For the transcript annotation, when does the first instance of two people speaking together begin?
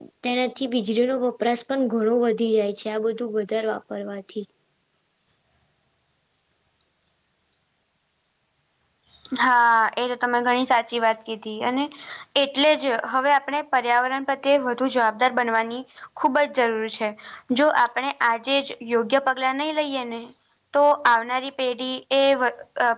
none

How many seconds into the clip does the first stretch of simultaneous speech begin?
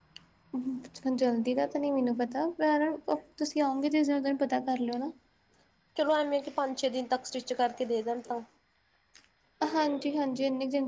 none

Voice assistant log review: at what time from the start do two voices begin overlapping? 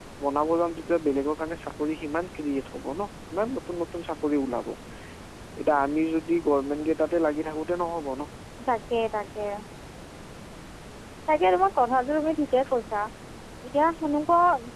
none

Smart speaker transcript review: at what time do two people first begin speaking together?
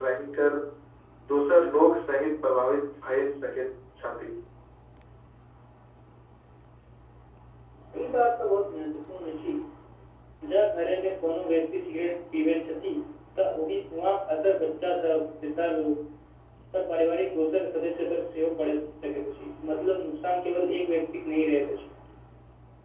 none

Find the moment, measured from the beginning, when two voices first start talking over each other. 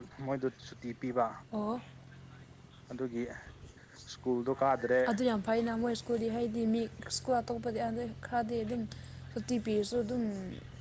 none

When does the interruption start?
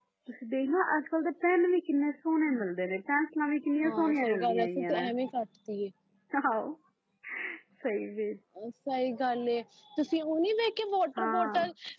3.8 s

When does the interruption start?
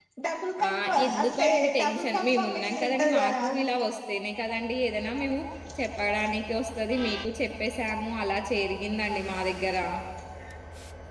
0.6 s

